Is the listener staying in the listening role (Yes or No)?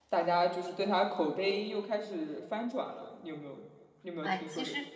No